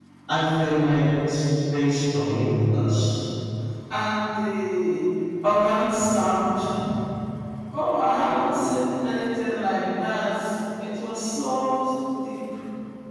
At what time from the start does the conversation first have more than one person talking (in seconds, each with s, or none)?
none